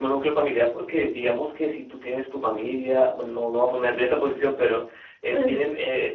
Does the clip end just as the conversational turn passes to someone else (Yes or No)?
No